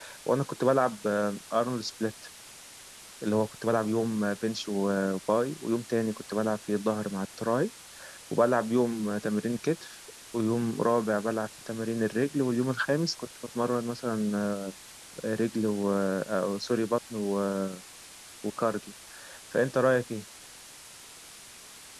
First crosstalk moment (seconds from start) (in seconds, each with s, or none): none